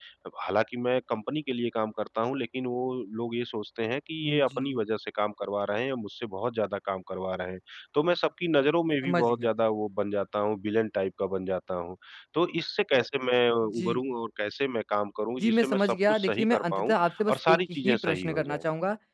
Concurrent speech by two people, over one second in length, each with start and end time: 15.4-18.6

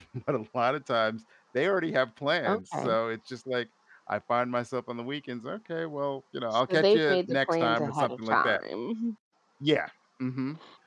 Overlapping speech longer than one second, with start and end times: 6.5-8.6

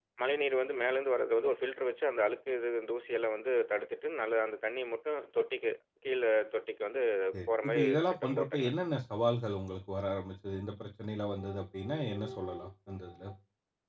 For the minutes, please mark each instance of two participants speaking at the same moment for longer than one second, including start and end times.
7.5-8.7

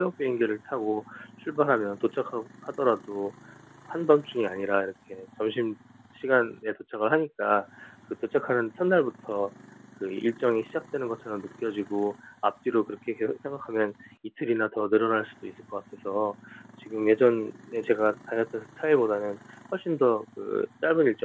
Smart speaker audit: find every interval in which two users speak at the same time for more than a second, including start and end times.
none

